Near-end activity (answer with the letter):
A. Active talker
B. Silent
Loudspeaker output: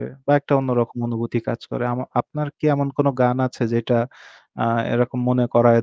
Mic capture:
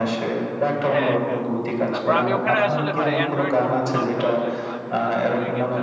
A